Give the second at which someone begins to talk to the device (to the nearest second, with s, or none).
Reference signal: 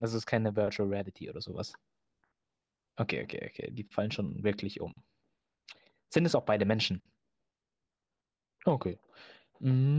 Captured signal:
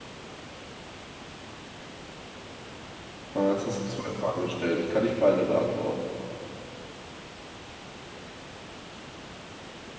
3 s